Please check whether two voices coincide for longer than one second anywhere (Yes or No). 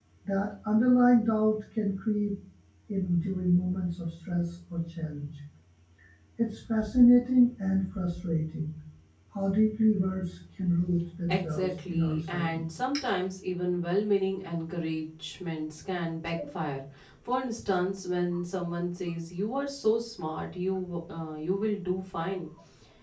Yes